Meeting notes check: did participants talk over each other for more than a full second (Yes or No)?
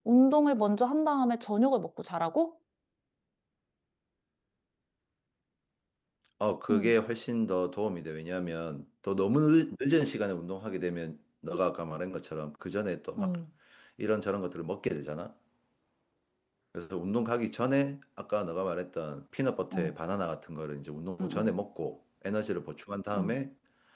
No